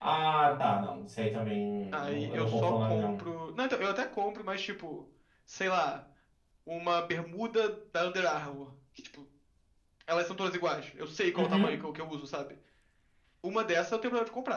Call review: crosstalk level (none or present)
present